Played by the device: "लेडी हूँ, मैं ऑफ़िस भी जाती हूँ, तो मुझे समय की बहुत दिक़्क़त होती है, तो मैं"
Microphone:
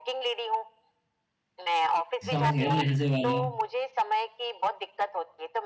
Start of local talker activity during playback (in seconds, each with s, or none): 2.3 s